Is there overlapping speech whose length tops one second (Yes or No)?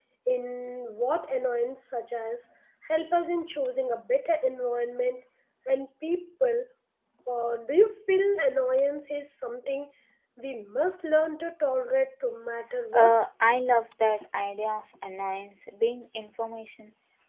No